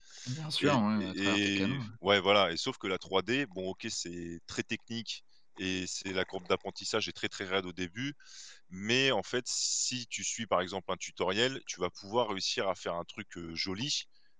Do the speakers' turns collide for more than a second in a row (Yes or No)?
Yes